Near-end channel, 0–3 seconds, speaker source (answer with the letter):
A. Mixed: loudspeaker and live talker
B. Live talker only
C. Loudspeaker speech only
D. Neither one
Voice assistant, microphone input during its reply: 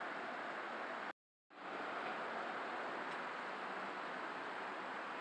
D